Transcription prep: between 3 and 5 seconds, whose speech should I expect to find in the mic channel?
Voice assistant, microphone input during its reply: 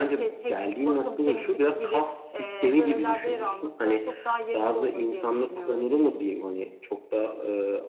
echo only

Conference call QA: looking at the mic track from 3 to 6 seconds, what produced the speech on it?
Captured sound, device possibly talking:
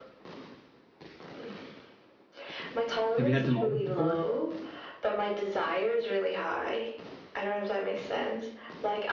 both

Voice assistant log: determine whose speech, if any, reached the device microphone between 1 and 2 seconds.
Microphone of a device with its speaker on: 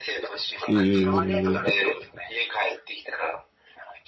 both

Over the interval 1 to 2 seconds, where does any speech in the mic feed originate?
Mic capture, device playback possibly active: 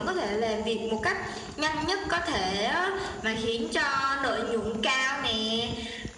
echo only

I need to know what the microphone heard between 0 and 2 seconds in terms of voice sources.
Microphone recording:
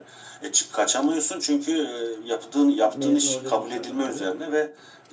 echo only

